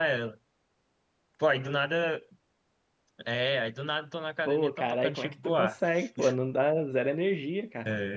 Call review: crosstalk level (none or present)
present